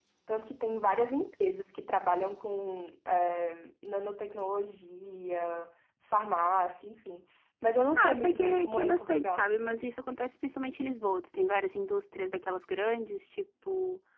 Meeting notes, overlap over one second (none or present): present